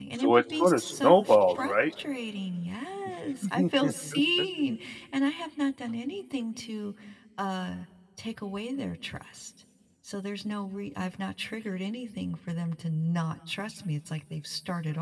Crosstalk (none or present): present